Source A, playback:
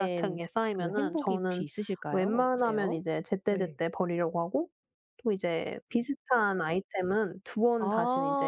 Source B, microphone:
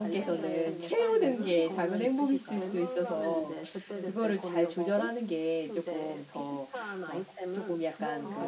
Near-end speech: present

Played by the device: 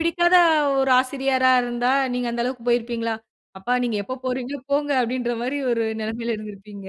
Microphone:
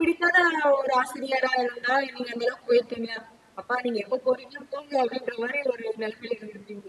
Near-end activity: none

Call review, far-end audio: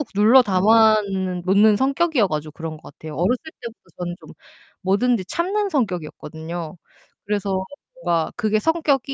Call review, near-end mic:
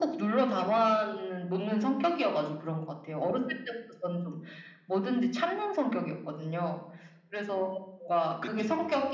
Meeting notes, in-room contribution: present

